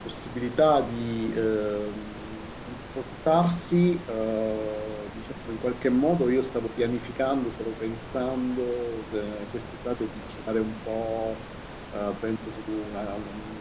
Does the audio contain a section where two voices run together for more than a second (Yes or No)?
No